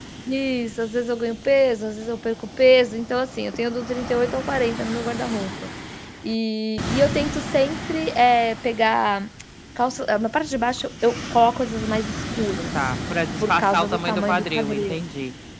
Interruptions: present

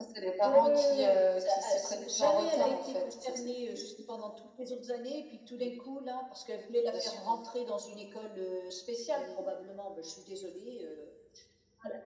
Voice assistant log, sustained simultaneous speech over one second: present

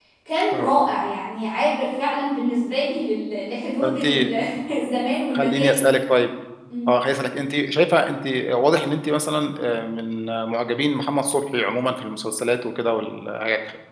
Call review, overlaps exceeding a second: none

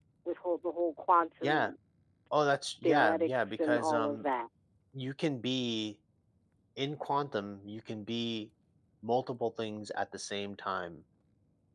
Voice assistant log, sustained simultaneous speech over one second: present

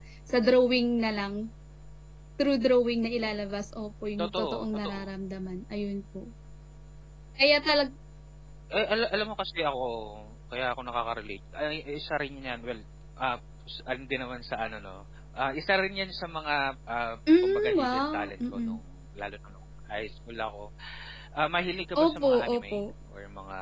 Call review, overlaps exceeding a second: present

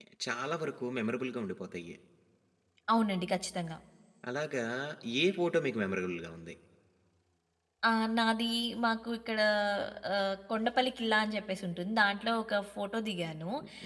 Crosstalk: none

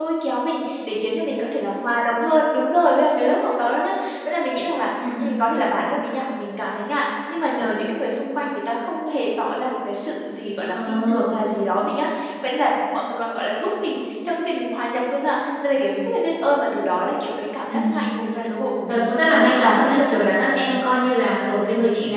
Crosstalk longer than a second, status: present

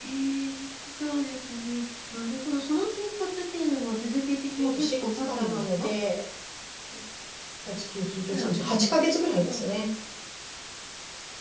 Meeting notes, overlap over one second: present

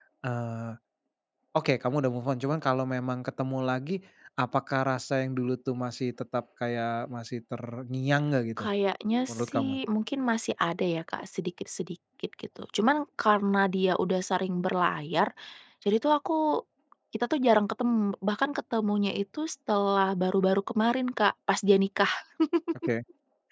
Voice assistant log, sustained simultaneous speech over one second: none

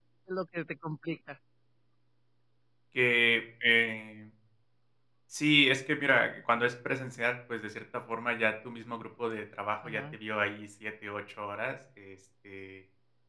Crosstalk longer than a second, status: none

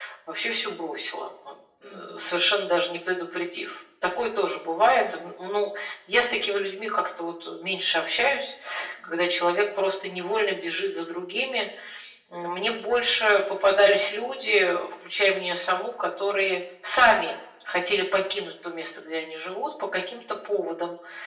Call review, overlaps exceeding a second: none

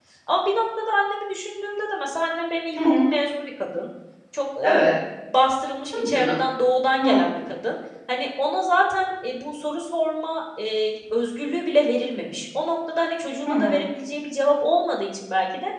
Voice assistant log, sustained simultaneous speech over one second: none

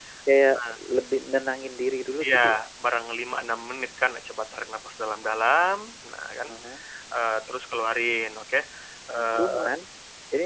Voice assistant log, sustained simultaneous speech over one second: none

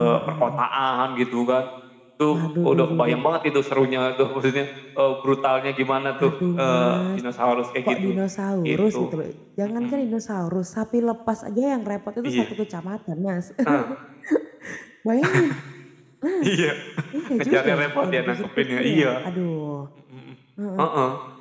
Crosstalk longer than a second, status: present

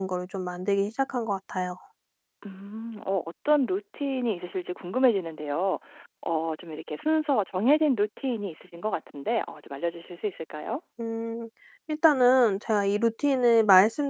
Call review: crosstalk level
none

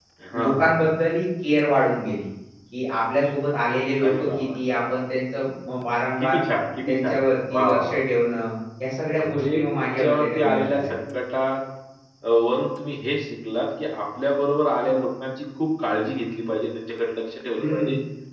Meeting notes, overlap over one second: present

